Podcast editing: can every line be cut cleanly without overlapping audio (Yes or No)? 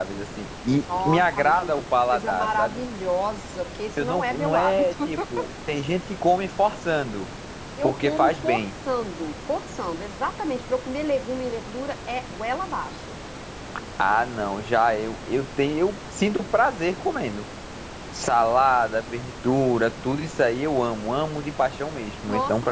No